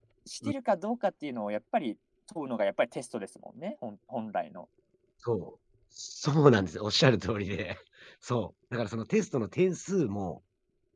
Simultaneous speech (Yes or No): No